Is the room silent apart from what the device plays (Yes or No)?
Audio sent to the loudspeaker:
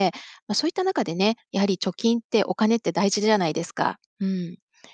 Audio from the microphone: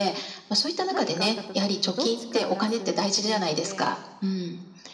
No